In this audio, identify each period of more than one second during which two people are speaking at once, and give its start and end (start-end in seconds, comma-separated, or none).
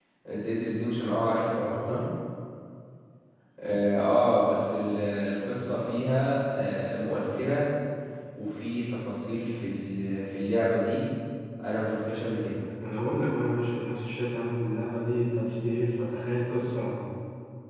none